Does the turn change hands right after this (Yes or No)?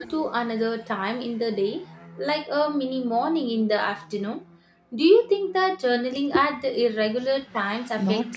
Yes